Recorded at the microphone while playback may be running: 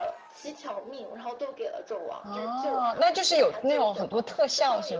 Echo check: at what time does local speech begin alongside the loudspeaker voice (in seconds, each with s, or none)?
2.2 s